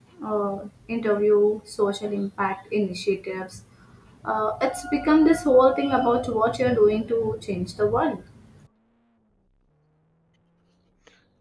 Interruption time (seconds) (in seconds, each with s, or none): none